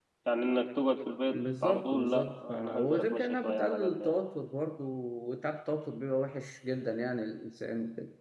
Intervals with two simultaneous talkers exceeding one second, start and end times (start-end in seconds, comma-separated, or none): 1.3-4.1